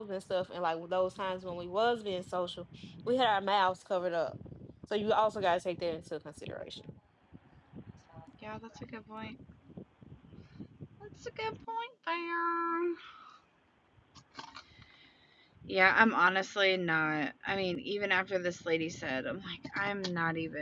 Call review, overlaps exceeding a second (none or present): none